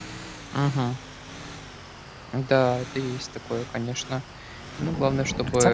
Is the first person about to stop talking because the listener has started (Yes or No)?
Yes